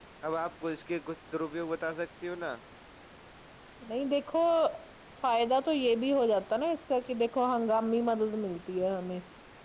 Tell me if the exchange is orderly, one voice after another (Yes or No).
Yes